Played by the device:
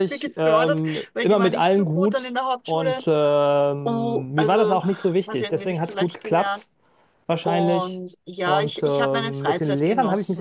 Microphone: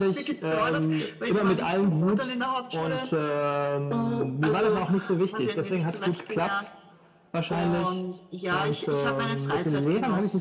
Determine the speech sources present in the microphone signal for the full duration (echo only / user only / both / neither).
echo only